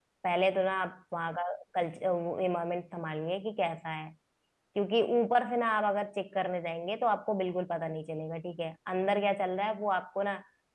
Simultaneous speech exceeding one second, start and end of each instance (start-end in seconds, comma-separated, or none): none